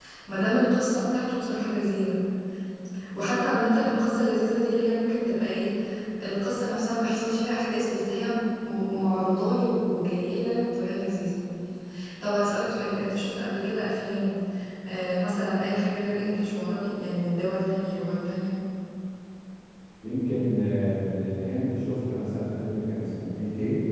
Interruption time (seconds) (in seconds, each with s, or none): none